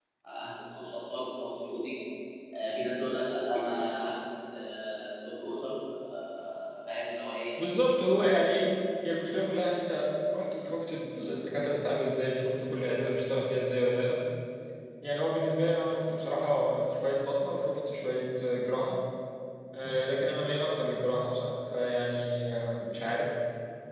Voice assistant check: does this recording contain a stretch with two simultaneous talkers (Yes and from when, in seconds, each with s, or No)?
No